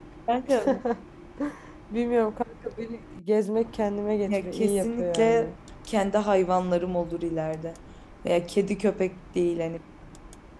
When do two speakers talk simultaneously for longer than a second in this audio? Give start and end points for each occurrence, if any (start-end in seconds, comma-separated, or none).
4.3-5.5